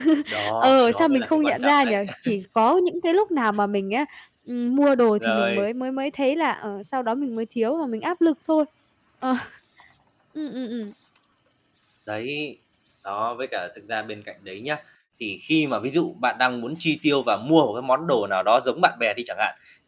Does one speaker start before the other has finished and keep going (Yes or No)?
Yes